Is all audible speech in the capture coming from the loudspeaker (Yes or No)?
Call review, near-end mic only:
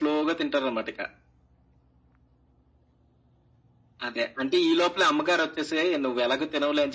Yes